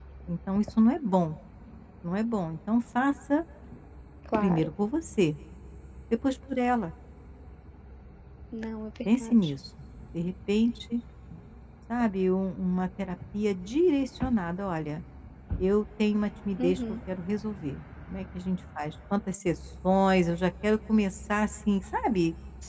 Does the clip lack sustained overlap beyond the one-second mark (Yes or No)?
Yes